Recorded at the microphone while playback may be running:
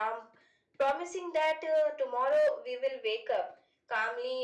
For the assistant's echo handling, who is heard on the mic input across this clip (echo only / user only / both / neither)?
echo only